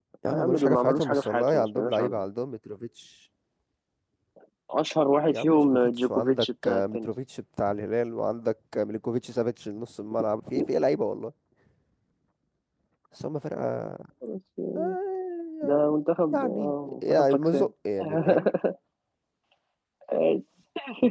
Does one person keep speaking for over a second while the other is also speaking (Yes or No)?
Yes